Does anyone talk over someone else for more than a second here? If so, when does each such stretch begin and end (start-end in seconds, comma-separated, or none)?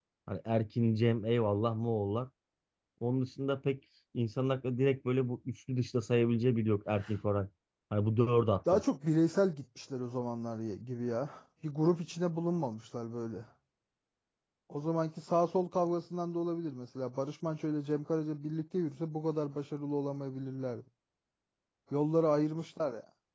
none